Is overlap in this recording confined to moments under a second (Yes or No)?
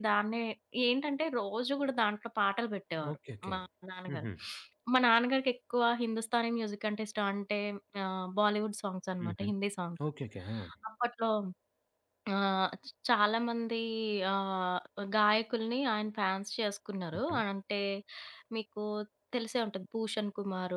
Yes